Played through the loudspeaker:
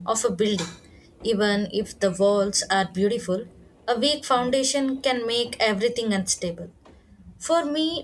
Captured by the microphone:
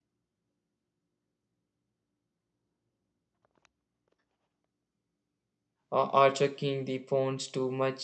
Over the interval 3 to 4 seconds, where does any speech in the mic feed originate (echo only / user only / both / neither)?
neither